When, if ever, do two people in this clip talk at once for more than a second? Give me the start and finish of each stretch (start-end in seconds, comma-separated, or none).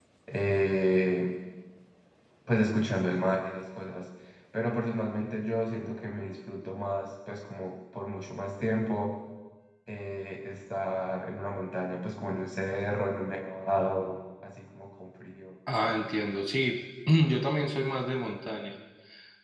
none